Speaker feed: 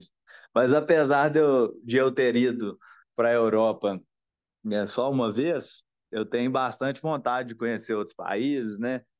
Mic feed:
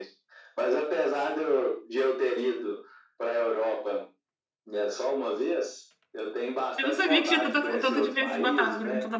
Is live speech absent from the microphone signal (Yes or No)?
No